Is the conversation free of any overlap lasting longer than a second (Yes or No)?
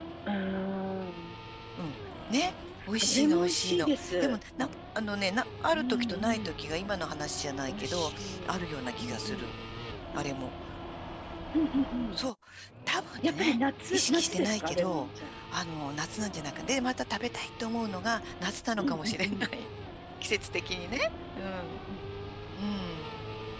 No